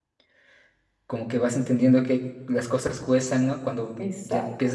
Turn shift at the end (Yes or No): No